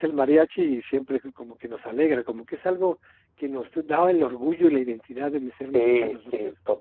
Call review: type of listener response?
taking over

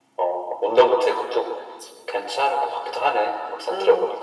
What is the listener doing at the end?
taking over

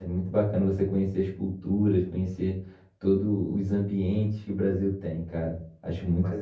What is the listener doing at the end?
taking over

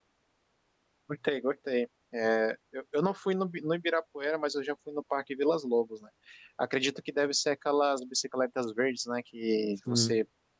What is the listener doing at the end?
listening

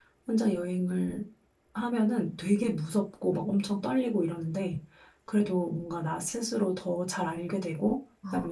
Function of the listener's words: listening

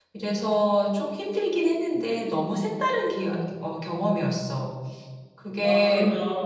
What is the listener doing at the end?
taking over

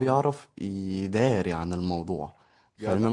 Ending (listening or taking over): listening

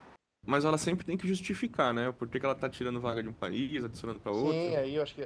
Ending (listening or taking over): taking over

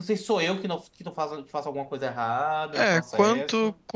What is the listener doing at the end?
taking over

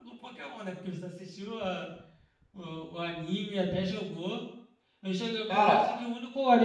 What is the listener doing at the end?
listening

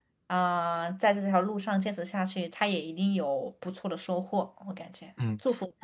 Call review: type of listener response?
taking over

